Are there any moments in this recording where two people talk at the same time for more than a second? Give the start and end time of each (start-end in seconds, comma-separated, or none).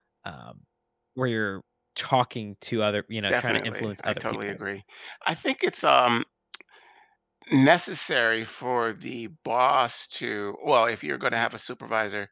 3.3-4.6